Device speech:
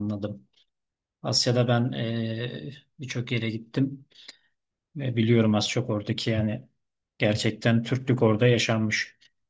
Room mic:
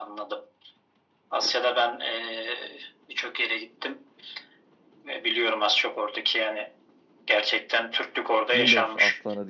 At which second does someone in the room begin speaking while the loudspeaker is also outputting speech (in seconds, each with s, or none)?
8.5 s